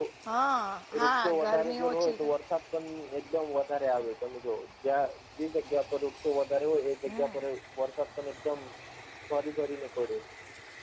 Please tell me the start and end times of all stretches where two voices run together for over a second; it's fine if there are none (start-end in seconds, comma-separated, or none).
1.0-2.3